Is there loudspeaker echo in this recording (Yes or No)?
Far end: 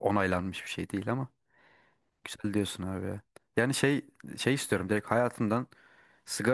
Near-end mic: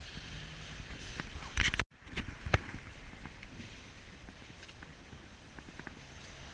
No